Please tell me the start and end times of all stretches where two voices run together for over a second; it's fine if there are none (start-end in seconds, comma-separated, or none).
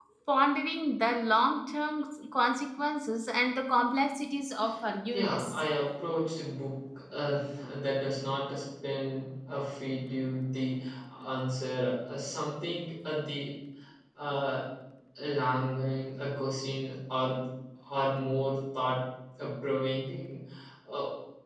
none